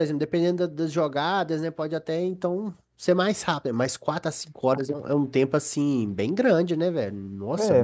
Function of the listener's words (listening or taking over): taking over